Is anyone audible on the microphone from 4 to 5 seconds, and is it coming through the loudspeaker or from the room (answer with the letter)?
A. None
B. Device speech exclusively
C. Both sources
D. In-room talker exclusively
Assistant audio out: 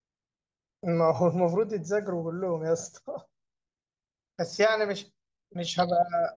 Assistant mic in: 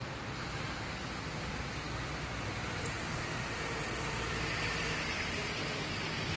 A